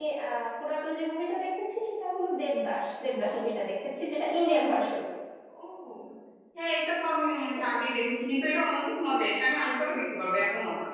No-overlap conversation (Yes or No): Yes